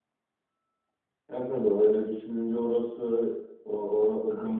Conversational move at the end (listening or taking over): taking over